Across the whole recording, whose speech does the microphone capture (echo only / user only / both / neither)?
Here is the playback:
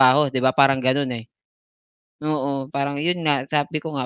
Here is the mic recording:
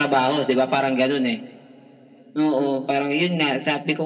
echo only